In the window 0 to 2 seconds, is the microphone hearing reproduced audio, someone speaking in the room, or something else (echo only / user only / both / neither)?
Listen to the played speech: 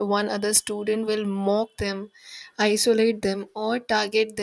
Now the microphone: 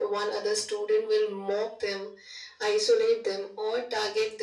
echo only